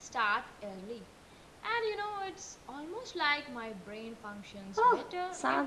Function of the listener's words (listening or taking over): taking over